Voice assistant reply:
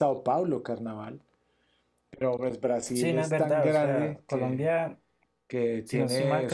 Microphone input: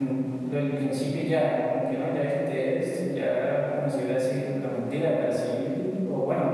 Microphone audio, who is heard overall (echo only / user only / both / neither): user only